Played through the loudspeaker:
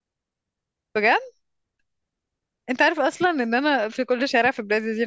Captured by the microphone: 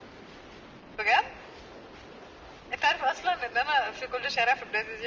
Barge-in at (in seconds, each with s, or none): none